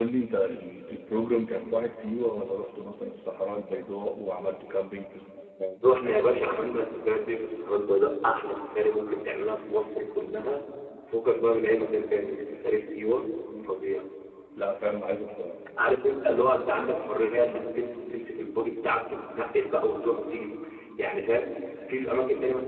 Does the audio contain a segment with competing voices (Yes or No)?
No